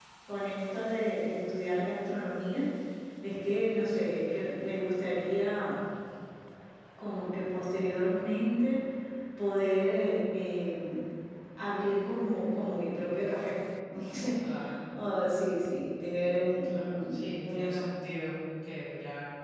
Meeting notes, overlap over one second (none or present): present